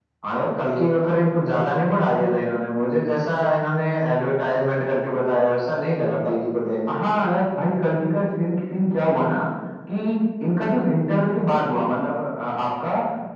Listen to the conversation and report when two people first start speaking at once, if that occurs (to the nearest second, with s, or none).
none